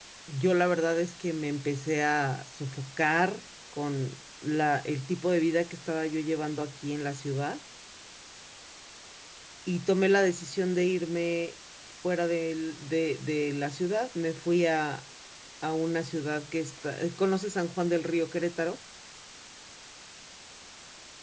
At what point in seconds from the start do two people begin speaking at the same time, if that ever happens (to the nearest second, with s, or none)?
none